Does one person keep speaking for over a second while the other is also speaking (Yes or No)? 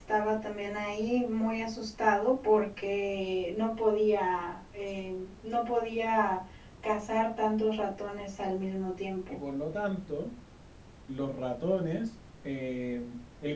No